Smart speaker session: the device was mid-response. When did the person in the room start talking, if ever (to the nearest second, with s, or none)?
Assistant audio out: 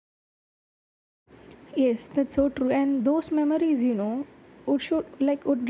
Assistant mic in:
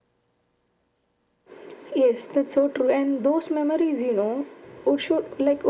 none